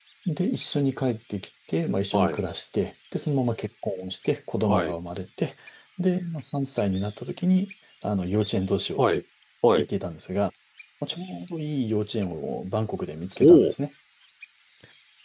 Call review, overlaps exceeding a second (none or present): none